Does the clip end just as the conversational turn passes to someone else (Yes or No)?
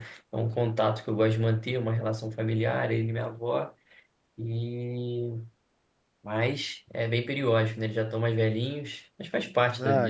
Yes